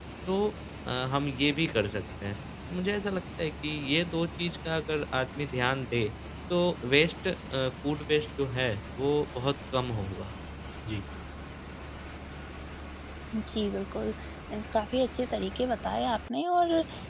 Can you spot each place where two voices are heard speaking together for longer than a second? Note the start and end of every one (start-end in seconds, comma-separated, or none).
none